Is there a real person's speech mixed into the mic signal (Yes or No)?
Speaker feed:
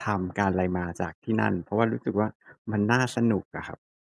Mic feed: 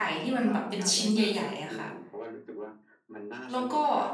Yes